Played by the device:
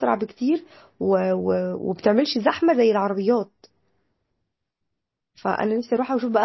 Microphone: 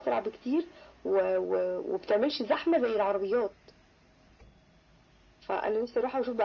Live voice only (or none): none